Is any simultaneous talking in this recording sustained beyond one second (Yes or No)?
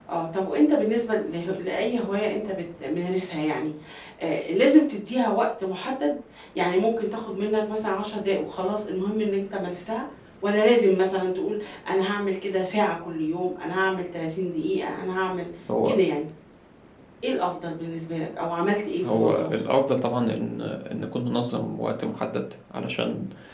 No